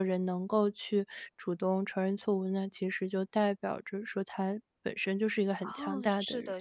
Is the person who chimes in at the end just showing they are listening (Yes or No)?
No